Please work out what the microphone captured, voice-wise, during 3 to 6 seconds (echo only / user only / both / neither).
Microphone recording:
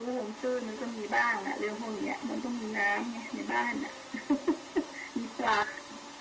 echo only